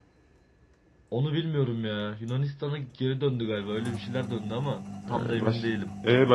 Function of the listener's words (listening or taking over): taking over